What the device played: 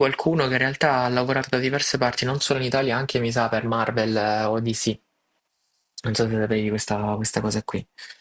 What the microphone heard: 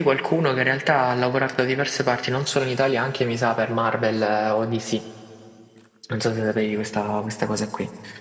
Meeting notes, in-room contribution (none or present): none